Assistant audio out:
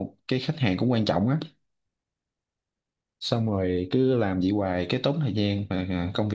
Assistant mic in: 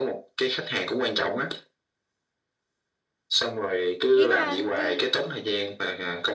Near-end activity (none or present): present